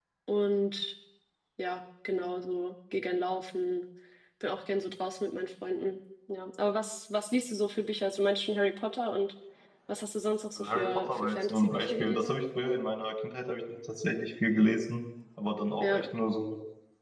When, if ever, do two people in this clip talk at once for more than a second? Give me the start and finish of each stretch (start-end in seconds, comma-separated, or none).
10.6-12.3